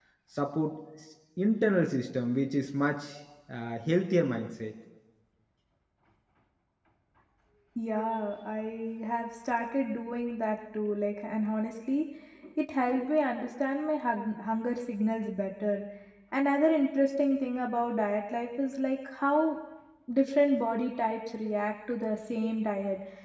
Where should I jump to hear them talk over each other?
none

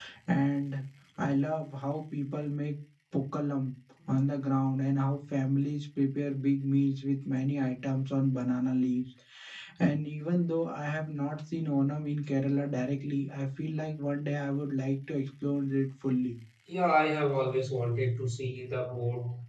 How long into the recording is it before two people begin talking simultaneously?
none

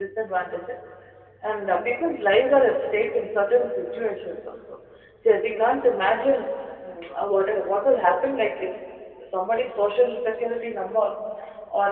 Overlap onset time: none

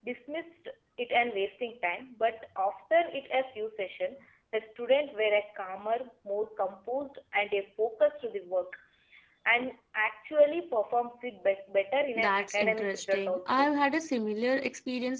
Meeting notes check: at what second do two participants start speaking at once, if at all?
12.2 s

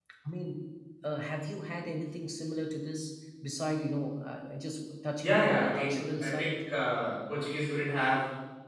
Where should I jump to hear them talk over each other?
5.2 s

